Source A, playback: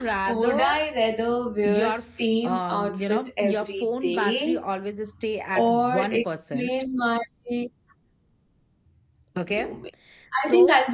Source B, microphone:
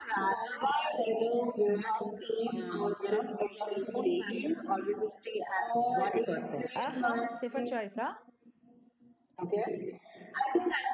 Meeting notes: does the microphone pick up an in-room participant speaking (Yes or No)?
Yes